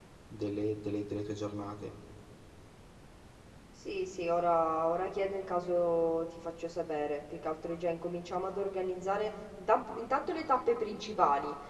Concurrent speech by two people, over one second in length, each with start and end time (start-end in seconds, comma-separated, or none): none